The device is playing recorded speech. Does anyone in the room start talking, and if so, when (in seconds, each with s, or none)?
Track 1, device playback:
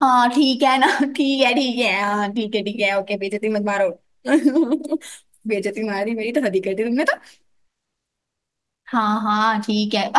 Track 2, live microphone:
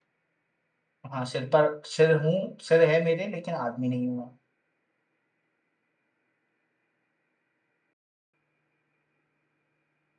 1.1 s